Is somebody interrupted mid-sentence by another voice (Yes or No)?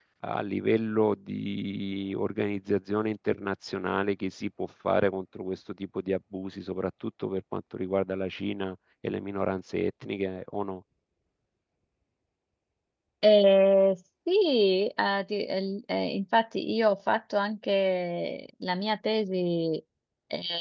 No